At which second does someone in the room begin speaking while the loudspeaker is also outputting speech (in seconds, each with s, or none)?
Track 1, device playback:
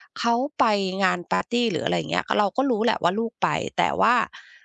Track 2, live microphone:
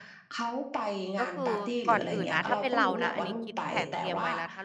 1.2 s